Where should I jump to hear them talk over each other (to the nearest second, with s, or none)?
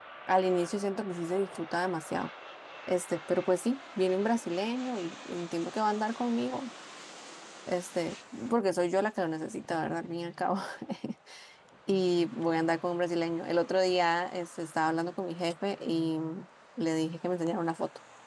none